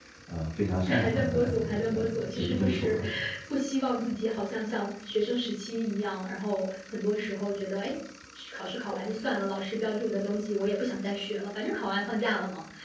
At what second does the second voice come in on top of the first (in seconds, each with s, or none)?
0.9 s